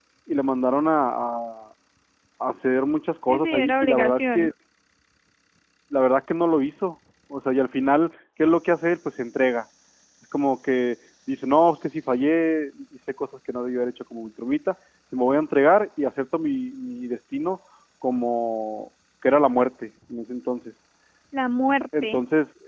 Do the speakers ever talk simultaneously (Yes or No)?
Yes